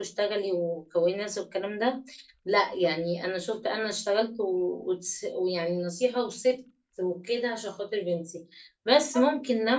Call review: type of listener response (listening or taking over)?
listening